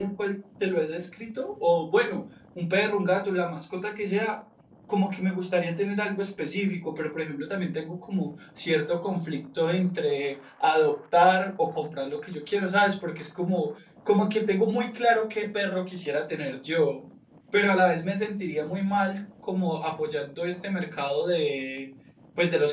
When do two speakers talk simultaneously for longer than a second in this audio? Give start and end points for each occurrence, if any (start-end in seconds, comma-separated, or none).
none